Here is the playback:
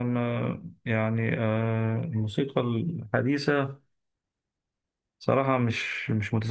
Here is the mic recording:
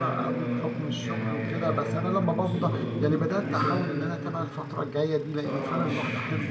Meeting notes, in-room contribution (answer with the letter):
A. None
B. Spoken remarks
B